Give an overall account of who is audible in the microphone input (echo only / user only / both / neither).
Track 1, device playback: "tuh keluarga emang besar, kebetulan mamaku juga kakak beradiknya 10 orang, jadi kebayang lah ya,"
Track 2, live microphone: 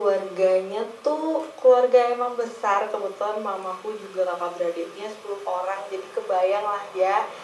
echo only